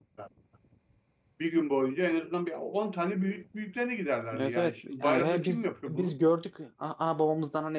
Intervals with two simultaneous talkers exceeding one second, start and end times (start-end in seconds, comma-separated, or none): 4.4-6.1